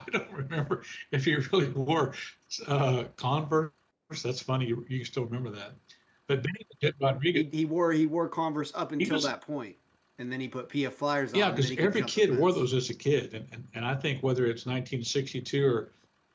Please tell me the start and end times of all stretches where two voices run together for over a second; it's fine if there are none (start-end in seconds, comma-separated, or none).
11.3-12.6